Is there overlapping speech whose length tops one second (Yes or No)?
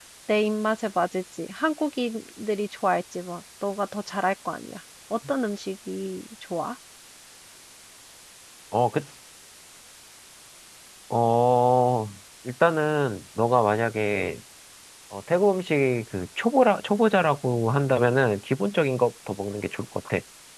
No